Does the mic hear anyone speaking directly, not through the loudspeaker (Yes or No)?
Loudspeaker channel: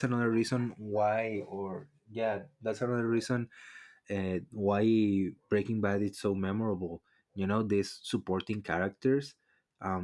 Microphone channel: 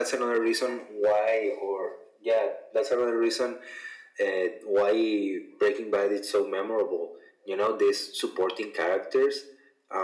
No